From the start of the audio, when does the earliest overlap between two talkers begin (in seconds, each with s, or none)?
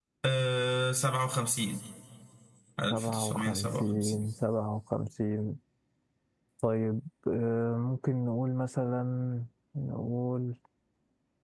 2.9 s